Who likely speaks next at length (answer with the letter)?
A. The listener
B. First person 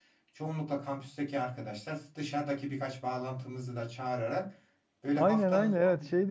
A